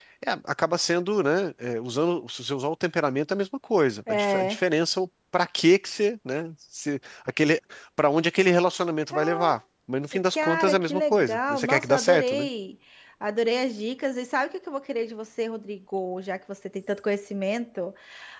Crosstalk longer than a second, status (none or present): present